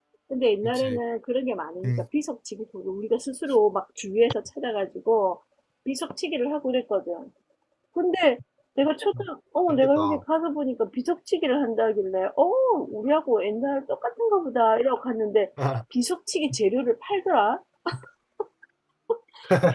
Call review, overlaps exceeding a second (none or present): none